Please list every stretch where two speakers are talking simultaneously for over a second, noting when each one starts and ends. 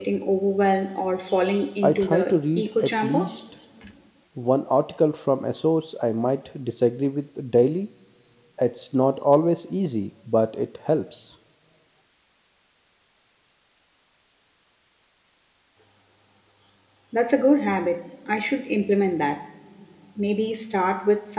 1.8-3.2

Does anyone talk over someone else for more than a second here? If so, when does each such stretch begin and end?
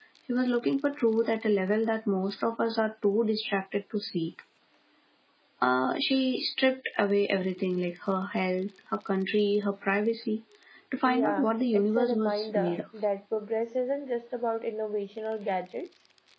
11.0-12.8

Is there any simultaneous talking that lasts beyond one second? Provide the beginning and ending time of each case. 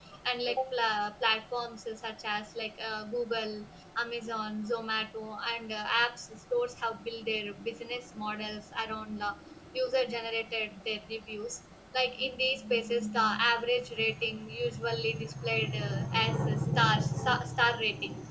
none

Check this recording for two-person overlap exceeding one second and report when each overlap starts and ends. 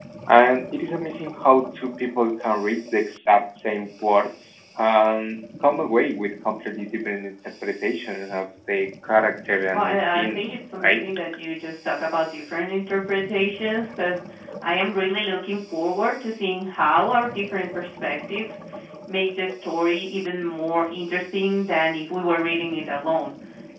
9.7-11.0

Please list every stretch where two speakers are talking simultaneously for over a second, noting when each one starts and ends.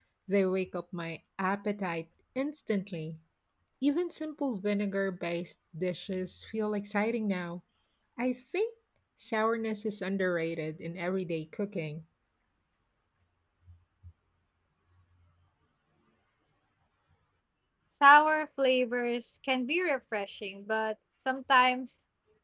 none

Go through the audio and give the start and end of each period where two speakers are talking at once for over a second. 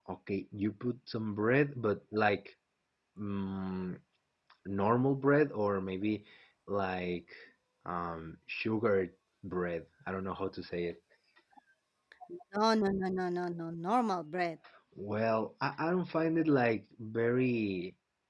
none

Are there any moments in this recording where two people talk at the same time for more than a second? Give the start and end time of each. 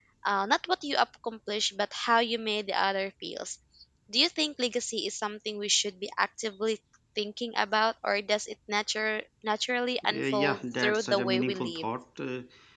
10.1-11.8

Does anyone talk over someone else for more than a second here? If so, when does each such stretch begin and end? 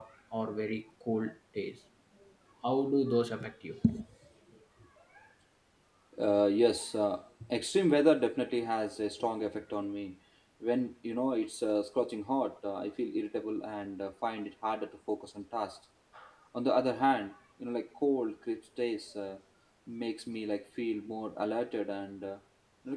none

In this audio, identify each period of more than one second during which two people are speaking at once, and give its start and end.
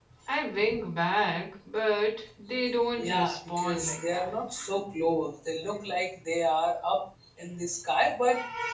3.0-4.3

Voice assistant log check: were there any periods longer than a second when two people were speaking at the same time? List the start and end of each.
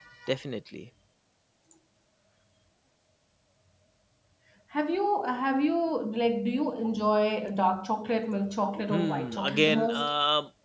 8.9-10.1

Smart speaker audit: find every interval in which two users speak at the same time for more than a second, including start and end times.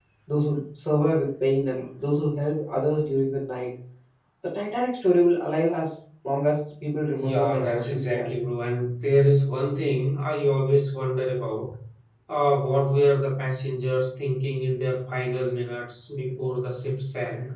7.2-8.4

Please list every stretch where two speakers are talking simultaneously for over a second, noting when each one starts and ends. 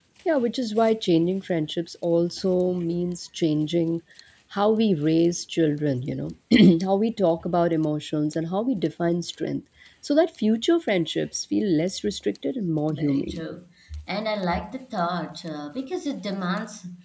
none

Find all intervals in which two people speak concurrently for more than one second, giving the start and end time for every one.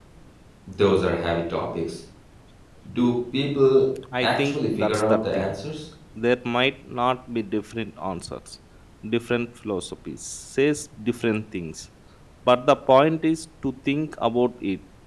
4.2-5.6

